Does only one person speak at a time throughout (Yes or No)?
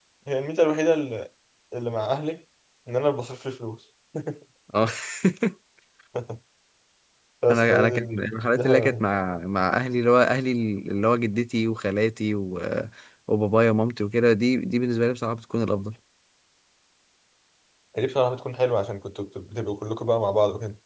No